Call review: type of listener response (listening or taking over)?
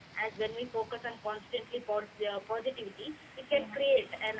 listening